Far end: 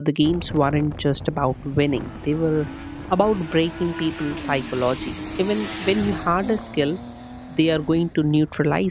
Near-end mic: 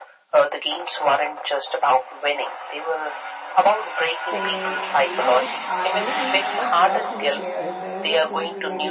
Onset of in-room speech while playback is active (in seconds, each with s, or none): 4.2 s